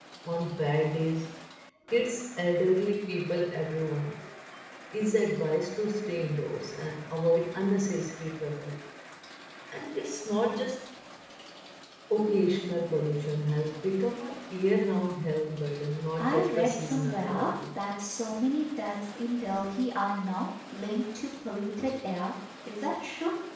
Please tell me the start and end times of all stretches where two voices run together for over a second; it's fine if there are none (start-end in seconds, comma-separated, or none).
16.2-17.5